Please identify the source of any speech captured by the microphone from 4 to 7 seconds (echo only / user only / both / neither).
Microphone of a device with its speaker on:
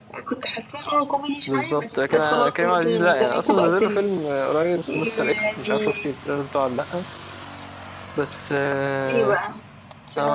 both